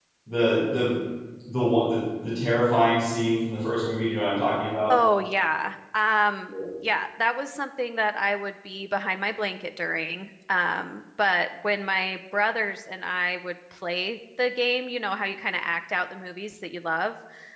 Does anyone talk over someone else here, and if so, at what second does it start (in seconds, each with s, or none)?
none